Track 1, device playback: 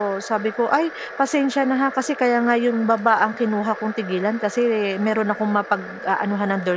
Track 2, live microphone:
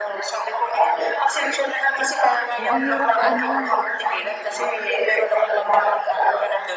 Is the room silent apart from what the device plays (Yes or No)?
No